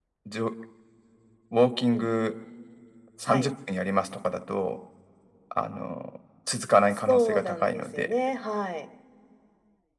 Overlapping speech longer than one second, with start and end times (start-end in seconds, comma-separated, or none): 6.9-8.1